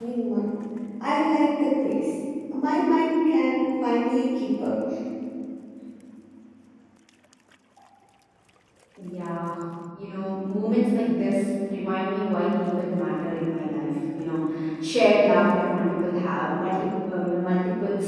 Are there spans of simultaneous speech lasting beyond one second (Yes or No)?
No